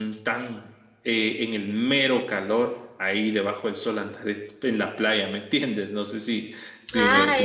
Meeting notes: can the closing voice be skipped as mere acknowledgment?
No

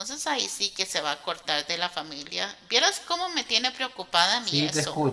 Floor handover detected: Yes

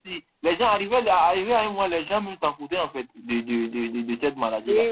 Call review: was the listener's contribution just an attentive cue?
No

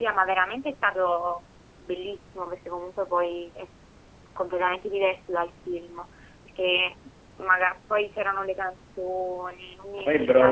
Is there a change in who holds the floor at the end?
Yes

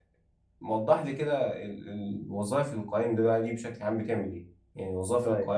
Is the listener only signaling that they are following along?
Yes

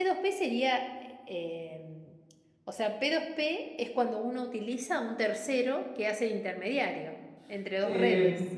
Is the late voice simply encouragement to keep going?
No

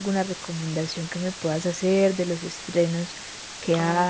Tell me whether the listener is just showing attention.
No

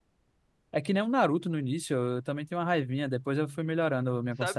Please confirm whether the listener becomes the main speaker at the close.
Yes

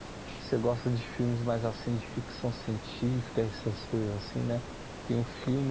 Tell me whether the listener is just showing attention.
Yes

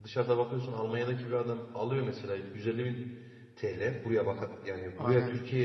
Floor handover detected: No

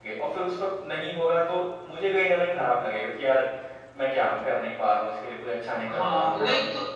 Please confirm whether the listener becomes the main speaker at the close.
Yes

